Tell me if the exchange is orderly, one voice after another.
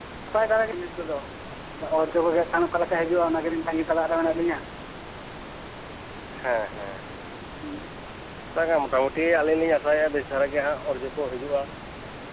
Yes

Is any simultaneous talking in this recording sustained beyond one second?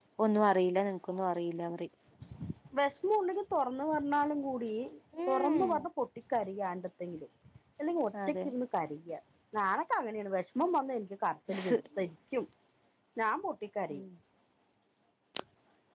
No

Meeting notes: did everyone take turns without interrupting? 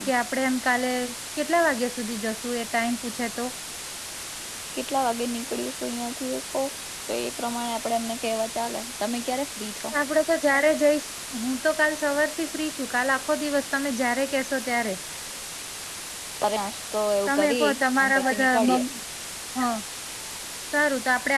No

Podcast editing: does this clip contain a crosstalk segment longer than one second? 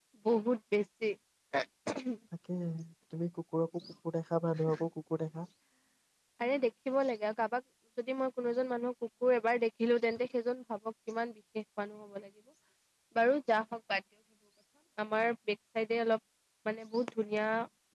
No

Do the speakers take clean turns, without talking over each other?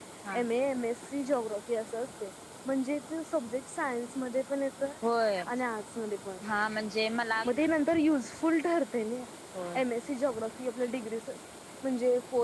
Yes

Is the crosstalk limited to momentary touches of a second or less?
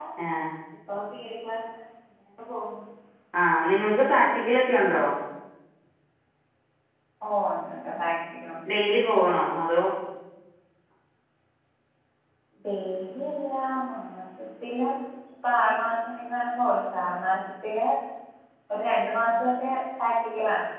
Yes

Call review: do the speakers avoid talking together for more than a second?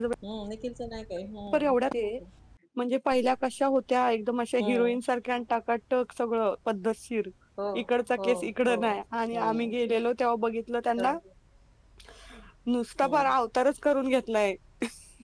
Yes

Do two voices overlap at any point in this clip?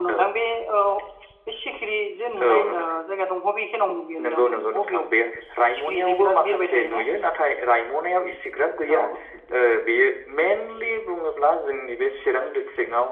Yes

